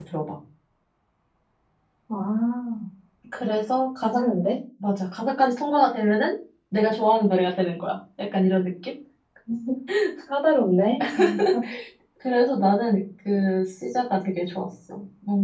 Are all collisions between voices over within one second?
Yes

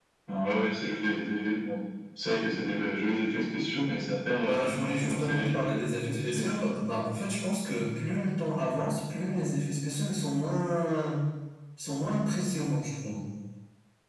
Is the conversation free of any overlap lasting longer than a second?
No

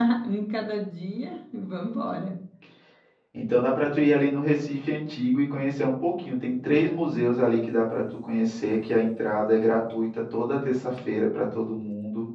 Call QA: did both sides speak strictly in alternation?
Yes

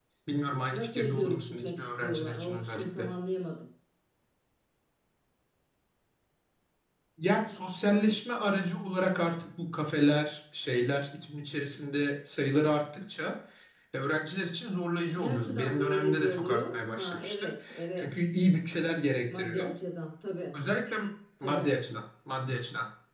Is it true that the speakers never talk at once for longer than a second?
No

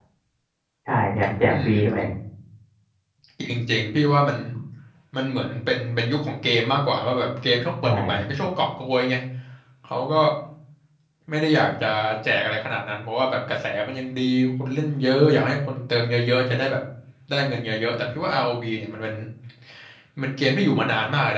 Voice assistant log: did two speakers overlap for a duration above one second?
No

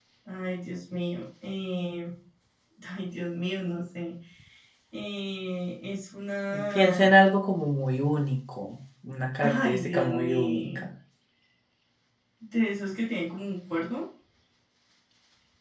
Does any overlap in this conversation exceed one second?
Yes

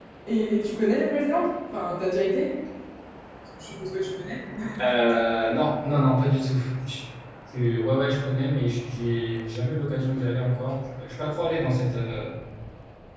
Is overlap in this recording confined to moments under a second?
Yes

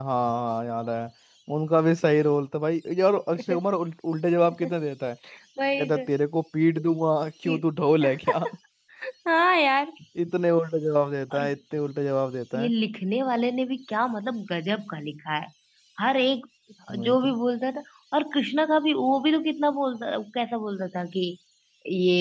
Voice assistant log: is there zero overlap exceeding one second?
Yes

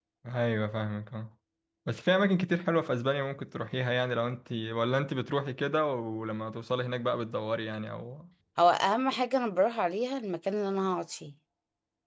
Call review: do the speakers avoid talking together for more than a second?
Yes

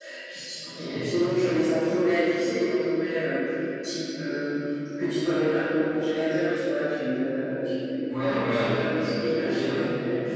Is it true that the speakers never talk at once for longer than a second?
No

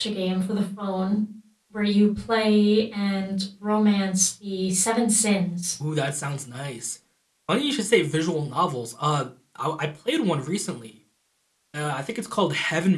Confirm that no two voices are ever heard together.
Yes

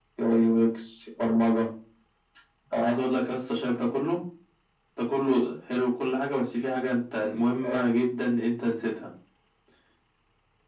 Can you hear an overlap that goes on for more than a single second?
No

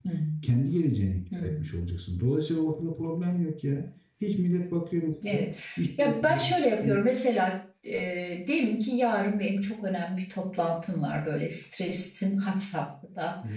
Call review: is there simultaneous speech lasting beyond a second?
No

